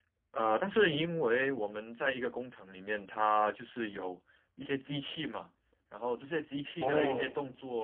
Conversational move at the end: listening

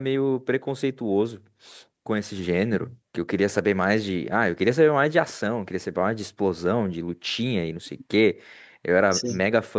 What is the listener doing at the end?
listening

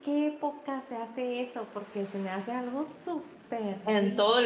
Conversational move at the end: taking over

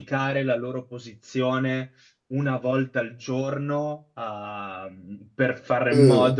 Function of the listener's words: listening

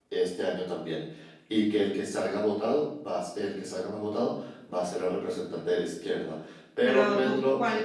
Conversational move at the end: taking over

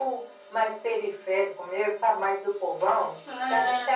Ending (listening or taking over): listening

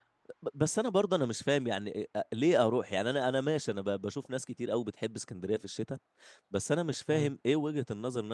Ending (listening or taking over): listening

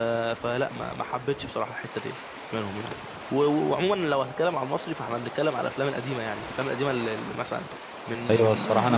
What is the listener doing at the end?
taking over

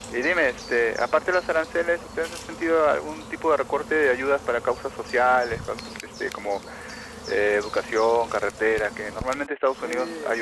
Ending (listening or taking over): taking over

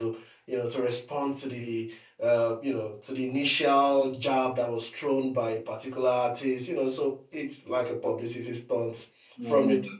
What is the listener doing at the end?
taking over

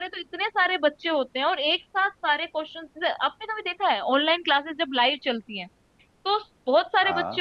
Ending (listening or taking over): listening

